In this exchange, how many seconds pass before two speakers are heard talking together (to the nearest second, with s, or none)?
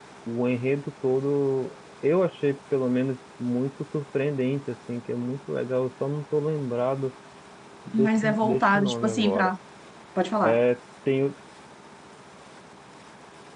8 s